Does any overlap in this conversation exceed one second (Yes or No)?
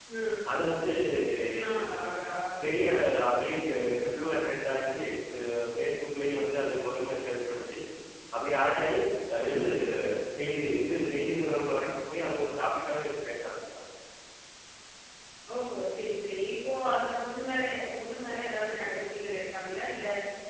No